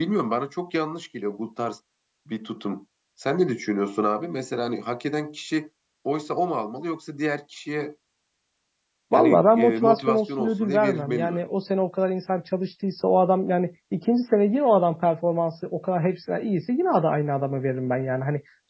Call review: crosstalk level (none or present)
present